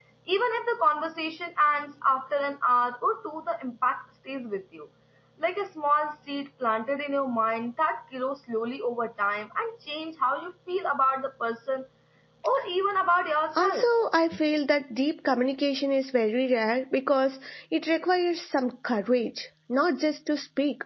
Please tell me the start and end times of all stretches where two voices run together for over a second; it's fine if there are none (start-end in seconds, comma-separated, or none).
none